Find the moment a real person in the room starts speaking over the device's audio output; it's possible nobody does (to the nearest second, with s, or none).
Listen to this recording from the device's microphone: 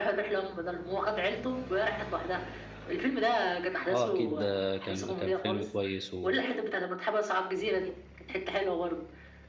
4 s